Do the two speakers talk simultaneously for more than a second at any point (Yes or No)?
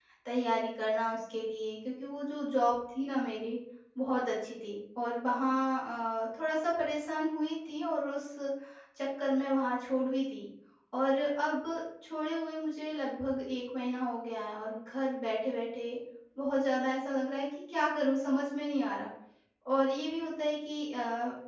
No